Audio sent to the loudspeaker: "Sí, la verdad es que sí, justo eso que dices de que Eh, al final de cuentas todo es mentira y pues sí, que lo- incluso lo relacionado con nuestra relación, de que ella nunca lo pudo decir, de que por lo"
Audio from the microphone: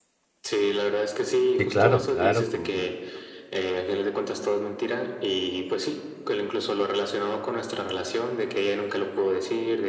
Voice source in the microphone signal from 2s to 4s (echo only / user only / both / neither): both